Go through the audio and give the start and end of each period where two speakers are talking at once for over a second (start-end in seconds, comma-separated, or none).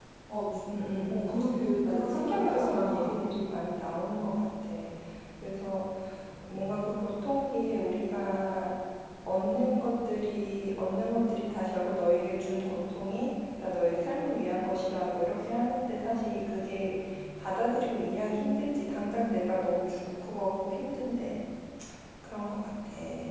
1.8-3.1